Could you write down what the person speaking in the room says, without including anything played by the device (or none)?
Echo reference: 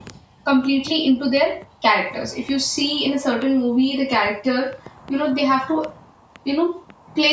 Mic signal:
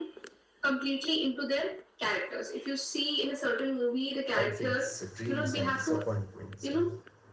conflicts dreams and disappointments and uh,